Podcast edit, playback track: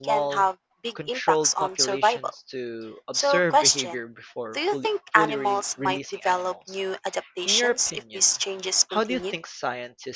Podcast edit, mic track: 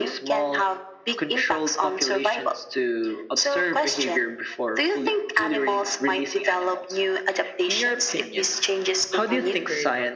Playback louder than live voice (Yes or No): Yes